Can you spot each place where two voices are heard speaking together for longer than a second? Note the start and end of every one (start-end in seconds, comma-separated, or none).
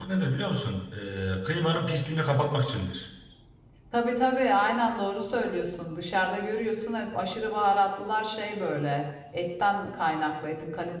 none